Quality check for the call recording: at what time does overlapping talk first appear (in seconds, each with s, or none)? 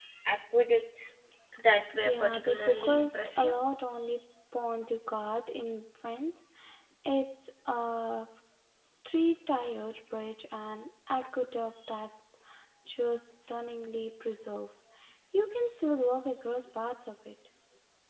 2.0 s